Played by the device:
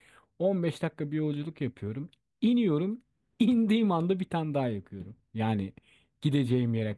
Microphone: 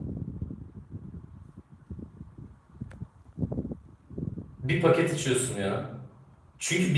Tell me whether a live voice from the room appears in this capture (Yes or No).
Yes